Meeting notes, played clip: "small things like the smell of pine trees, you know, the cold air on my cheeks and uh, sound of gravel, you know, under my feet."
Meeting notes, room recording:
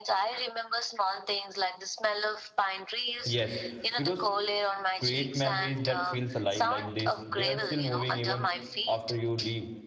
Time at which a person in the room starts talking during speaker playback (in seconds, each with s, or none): 3.2 s